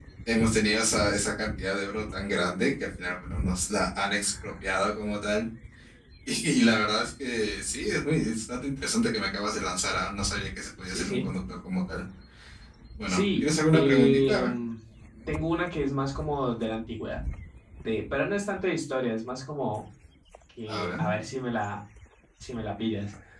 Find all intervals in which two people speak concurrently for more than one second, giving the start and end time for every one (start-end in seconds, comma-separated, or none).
13.1-14.5